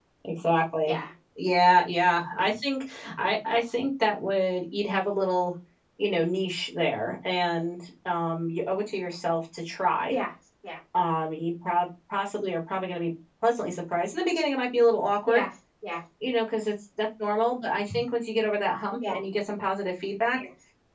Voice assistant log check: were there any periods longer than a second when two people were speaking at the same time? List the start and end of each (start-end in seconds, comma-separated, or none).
none